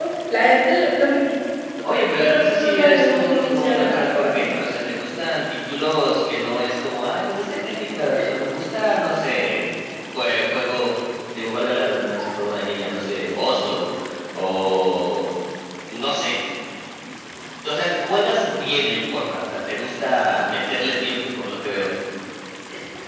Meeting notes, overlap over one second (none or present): present